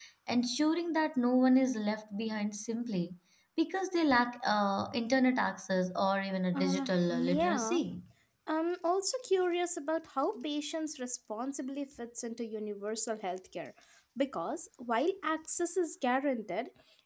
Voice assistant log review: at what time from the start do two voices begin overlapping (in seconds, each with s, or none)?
6.5 s